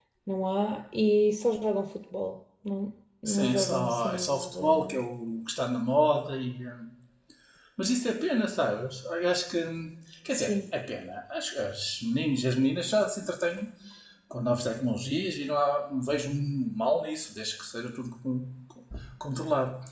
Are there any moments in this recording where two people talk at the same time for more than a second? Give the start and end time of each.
3.2-4.9

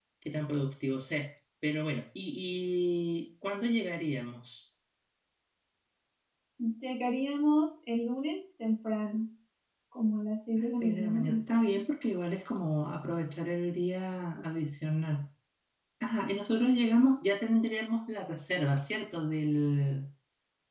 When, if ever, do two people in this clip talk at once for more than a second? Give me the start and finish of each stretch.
10.6-11.8

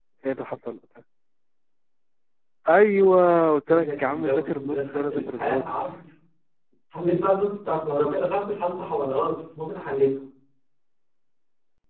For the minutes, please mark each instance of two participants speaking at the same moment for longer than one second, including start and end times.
3.7-5.6

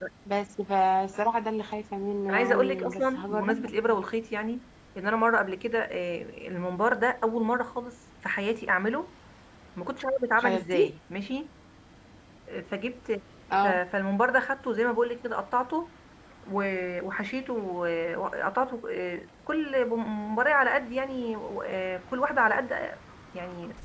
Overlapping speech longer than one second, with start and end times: 2.3-3.7

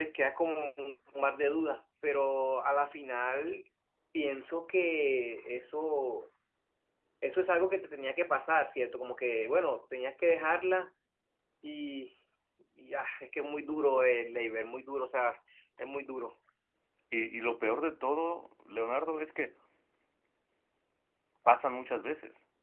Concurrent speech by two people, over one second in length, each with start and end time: none

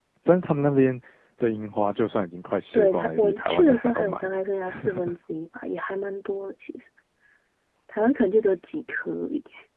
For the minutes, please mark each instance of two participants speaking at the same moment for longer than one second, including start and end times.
2.7-4.2

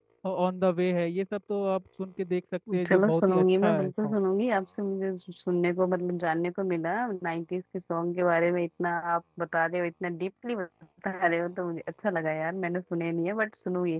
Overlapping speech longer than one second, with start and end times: 2.9-4.2

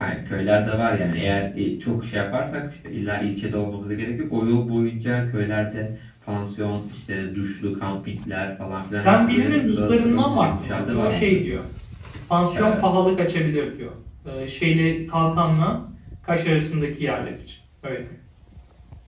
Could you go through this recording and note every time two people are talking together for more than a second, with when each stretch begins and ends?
9.0-11.4

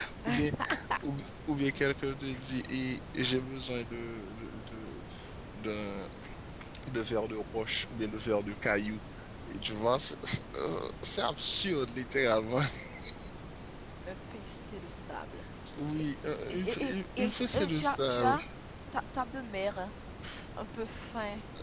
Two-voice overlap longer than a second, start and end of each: 16.5-18.3

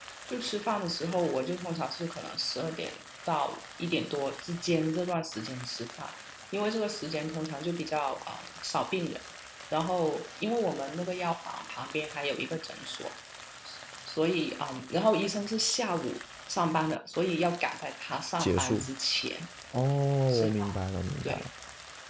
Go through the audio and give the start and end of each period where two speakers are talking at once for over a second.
none

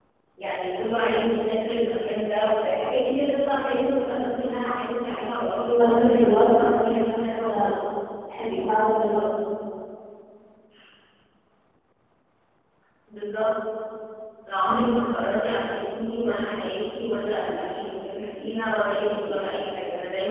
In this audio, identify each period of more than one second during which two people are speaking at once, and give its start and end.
5.8-7.8

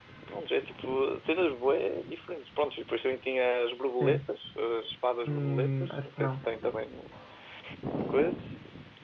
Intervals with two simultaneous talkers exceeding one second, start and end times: 5.2-6.4

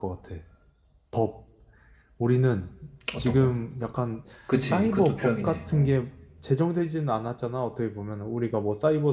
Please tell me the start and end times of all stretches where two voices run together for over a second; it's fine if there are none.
4.6-5.9

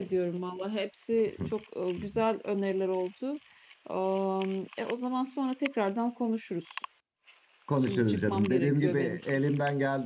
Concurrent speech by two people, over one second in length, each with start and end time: 7.8-9.4

